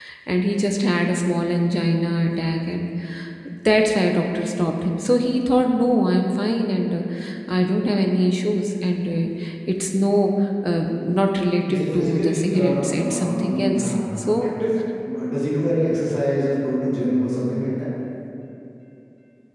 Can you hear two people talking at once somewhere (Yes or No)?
Yes